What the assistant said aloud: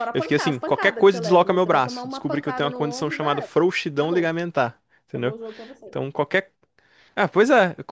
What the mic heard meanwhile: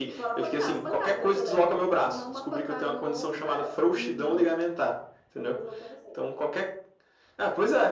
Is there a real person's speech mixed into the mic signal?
Yes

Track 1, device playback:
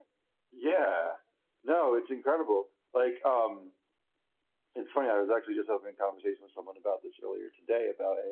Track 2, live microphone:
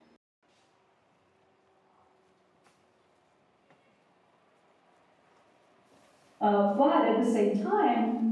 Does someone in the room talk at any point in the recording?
Yes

